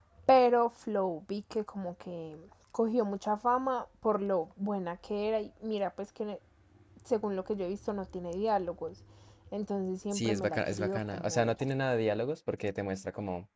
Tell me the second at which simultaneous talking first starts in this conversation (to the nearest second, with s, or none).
10 s